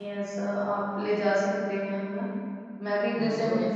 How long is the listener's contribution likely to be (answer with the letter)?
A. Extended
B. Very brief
A